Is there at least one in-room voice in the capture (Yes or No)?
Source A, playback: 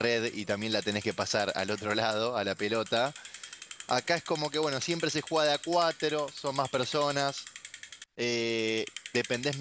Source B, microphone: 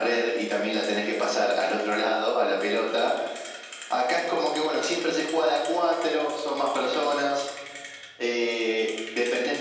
No